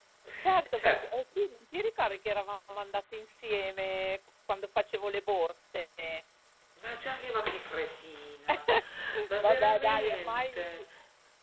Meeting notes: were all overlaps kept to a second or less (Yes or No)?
No